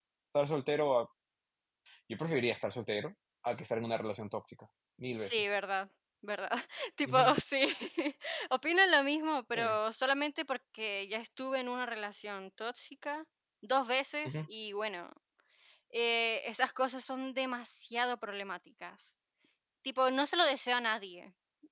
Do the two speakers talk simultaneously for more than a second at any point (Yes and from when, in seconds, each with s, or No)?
No